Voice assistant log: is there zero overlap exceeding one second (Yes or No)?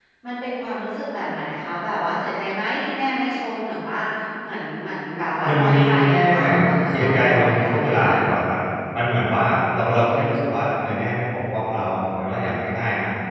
No